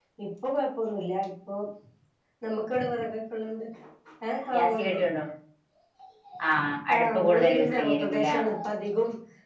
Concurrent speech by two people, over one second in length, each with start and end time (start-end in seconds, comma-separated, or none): 6.9-8.3